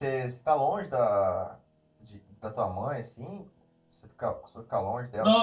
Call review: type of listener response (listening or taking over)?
taking over